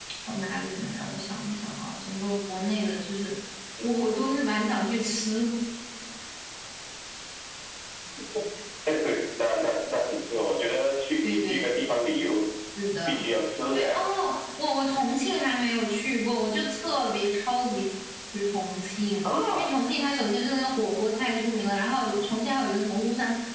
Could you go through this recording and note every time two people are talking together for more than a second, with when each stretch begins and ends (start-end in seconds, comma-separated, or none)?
none